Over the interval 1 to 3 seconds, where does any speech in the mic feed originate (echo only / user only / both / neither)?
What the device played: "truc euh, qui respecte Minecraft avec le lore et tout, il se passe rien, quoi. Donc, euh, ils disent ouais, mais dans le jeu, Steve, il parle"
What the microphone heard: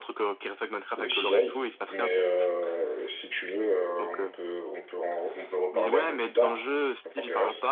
both